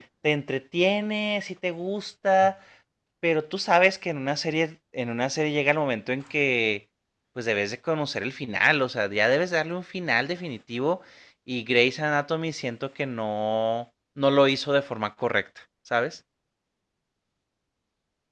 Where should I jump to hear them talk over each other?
none

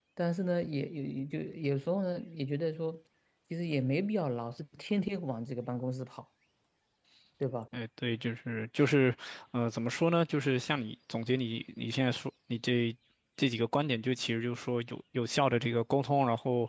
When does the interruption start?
none

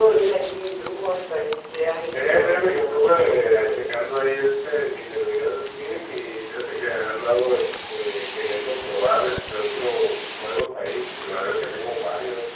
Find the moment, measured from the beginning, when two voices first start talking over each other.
2.1 s

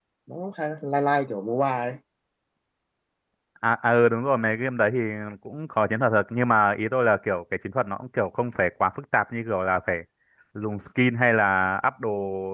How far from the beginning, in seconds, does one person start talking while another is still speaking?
none

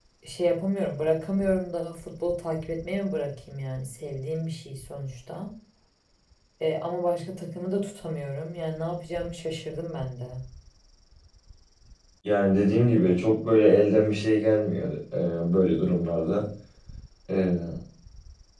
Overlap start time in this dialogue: none

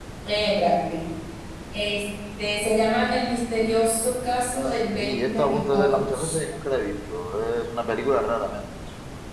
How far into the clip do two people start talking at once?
5.0 s

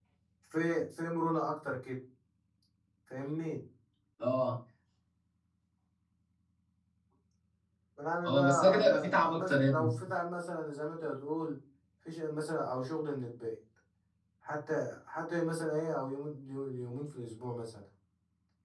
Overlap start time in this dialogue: 8.2 s

